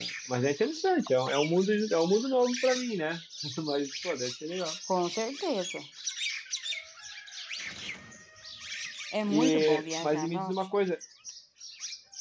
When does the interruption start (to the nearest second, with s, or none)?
9 s